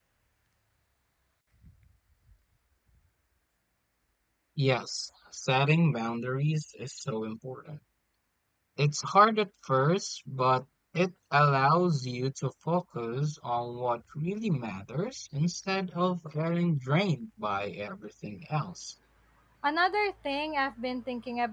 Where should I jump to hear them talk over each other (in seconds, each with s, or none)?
none